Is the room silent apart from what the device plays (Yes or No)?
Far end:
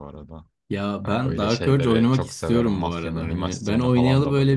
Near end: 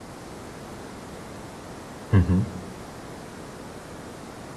No